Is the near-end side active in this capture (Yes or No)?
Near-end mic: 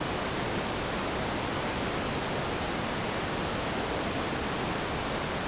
No